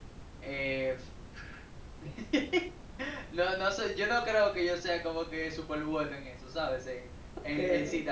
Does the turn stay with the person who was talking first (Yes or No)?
Yes